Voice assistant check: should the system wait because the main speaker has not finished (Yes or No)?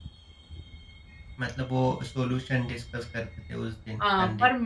No